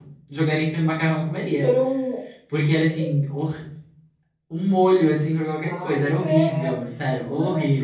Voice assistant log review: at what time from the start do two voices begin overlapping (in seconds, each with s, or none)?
5.6 s